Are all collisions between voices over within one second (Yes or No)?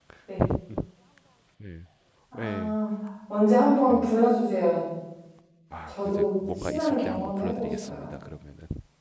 No